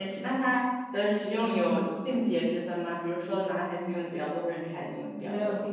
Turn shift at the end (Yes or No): Yes